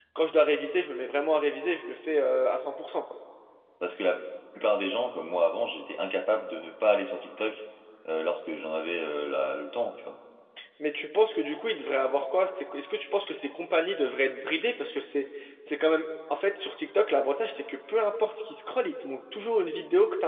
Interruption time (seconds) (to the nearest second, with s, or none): none